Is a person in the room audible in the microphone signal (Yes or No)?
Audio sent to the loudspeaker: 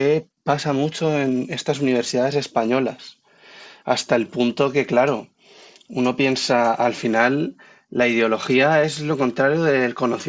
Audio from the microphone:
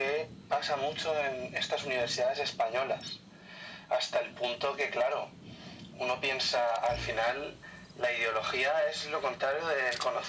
No